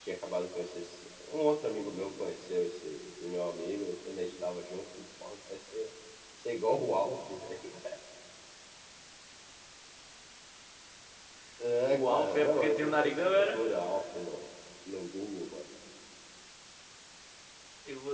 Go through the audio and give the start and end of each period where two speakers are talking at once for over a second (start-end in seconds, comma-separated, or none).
11.9-13.6